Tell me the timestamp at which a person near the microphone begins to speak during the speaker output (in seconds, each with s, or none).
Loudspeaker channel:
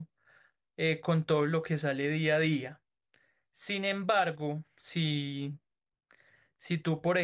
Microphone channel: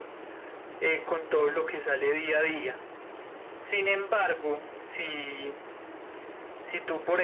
none